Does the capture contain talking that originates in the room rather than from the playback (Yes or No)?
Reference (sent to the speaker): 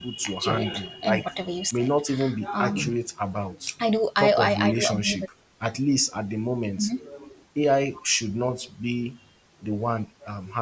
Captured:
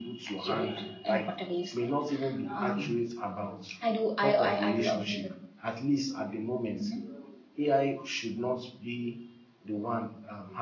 No